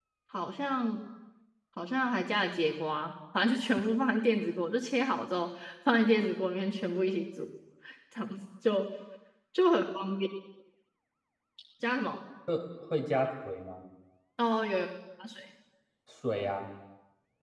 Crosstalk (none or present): none